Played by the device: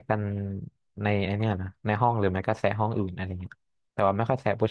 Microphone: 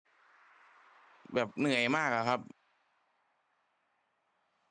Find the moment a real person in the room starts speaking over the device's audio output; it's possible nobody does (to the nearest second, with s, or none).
1 s